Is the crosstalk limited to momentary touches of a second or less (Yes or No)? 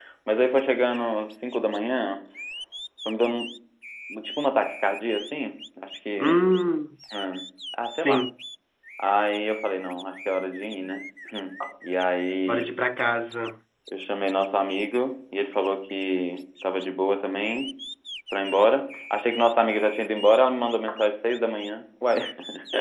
Yes